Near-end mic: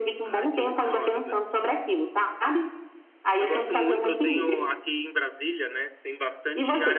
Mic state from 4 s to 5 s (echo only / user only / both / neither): both